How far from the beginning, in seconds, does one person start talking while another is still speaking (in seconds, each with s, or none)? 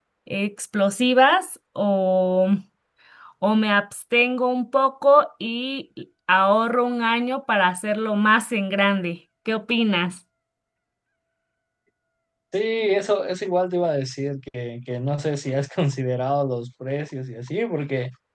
none